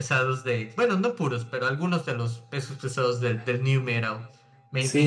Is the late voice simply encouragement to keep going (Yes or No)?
No